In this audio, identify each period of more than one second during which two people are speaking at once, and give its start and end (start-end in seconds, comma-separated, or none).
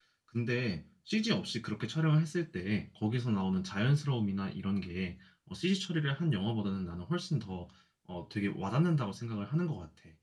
none